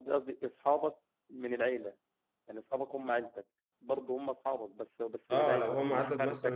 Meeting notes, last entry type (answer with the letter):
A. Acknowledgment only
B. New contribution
B